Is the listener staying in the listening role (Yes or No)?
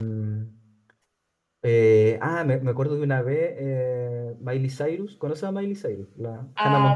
No